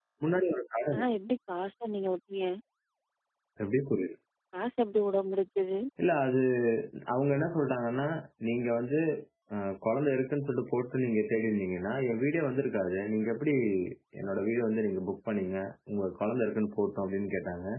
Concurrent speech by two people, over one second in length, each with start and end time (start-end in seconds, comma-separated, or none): none